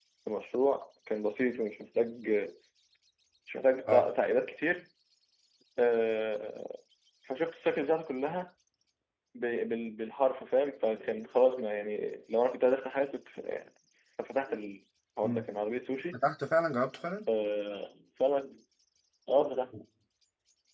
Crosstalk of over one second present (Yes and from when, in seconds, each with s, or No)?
No